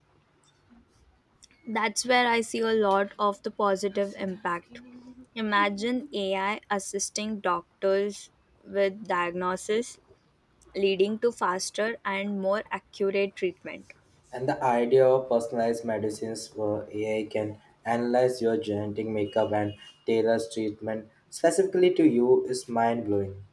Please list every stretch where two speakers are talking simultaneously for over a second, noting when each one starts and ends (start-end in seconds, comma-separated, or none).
none